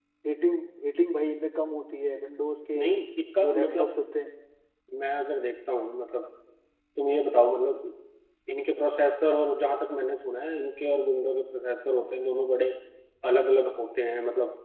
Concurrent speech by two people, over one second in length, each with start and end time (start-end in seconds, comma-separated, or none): none